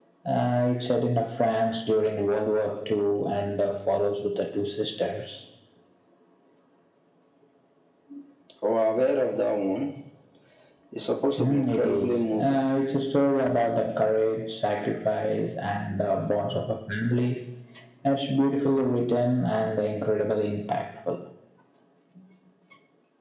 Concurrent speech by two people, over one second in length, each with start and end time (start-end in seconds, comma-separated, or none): 11.4-12.7